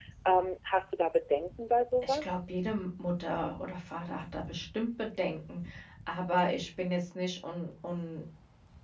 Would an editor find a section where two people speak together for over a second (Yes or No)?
No